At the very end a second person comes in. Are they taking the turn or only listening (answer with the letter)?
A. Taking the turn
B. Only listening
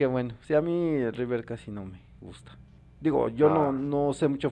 B